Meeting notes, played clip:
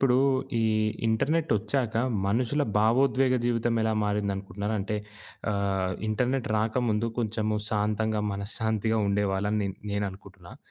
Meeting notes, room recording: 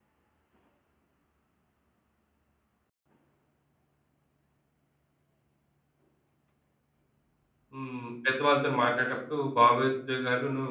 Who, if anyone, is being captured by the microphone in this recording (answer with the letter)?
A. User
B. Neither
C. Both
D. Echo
A